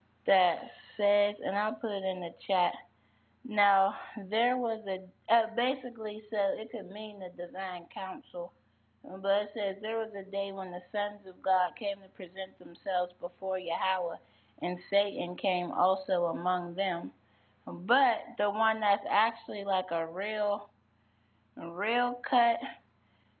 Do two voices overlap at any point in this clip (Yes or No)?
No